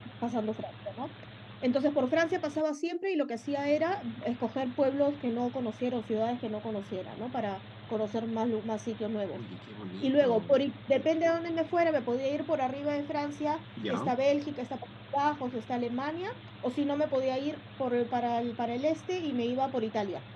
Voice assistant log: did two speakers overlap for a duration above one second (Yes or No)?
No